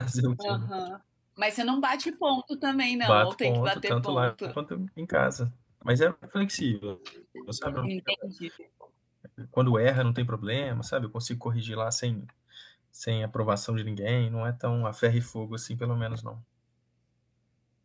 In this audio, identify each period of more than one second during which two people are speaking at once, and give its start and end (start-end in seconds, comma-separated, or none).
3.0-4.3